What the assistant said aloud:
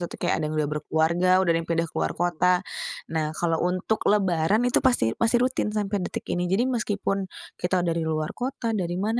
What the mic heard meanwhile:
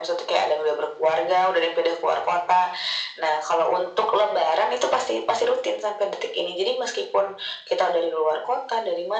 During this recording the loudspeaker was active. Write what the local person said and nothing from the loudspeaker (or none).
none